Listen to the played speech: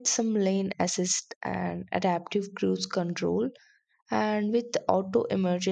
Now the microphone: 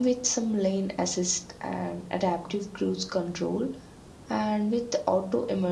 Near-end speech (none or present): none